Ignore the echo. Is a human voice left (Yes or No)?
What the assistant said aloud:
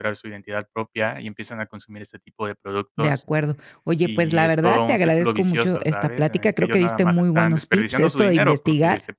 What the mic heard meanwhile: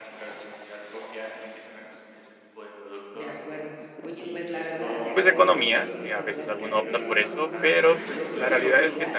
Yes